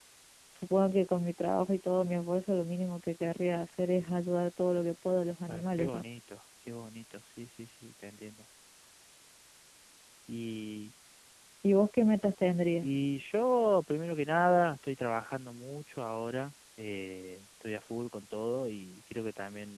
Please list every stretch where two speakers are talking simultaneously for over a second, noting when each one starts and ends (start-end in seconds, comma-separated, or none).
none